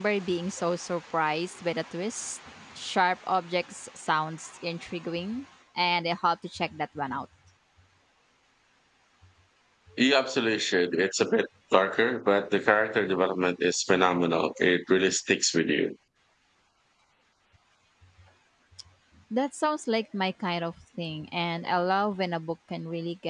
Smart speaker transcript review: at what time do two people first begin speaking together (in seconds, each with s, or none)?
none